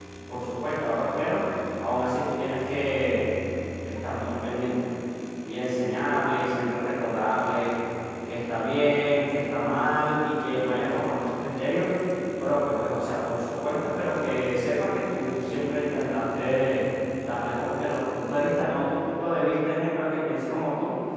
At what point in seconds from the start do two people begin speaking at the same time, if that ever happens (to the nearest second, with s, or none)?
none